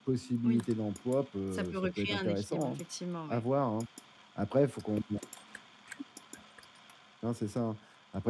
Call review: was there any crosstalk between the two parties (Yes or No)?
Yes